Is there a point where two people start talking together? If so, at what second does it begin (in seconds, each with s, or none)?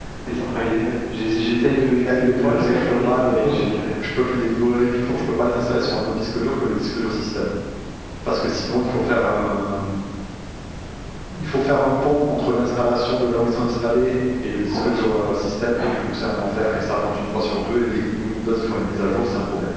2.0 s